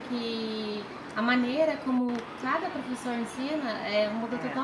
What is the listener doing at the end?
listening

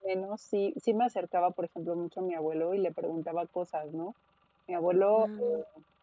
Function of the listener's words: listening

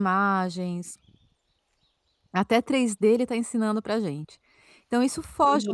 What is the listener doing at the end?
taking over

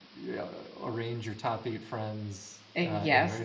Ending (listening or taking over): listening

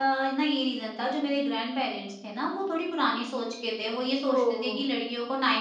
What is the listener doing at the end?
listening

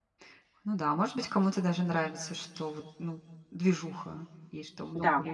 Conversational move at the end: taking over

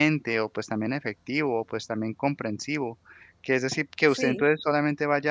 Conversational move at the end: listening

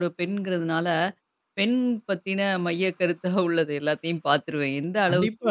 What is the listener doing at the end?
taking over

